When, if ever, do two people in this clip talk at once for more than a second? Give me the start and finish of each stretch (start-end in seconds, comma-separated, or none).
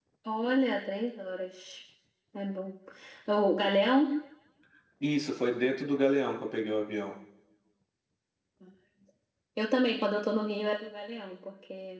none